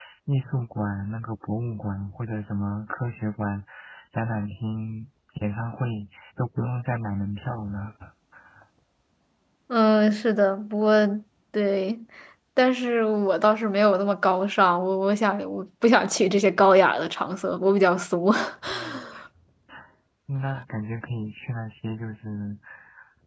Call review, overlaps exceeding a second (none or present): none